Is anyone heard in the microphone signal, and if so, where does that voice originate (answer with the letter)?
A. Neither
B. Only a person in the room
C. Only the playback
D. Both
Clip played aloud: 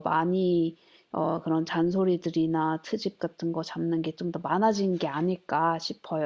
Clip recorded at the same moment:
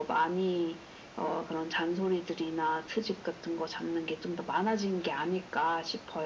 C